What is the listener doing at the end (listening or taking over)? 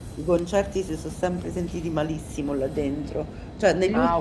listening